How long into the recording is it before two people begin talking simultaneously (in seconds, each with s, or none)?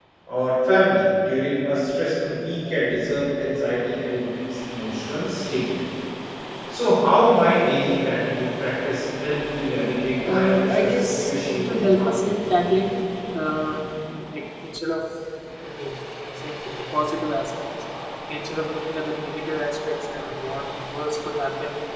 10.0 s